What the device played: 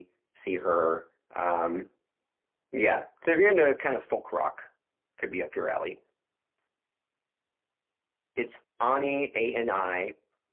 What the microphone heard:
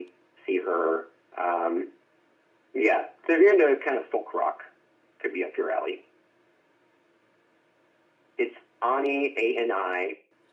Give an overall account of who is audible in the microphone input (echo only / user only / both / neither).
echo only